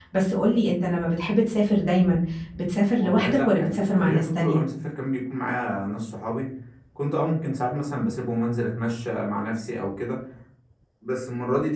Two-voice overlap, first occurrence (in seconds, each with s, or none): 2.9 s